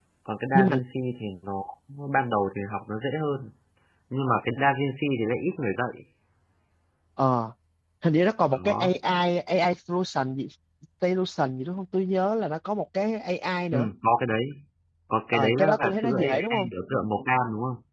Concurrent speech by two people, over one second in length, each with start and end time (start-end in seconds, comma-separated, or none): 15.3-16.7